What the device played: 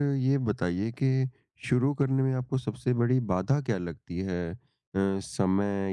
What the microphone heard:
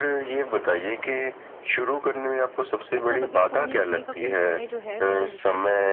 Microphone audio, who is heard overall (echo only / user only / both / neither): both